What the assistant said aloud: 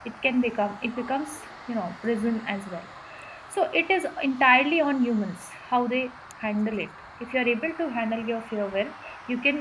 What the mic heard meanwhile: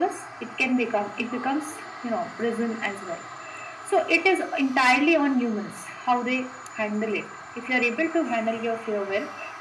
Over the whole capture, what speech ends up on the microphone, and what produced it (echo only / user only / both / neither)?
echo only